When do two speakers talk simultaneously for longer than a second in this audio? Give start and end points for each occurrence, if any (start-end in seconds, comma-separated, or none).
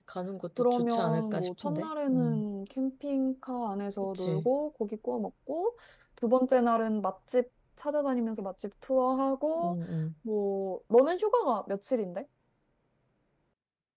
0.6-2.4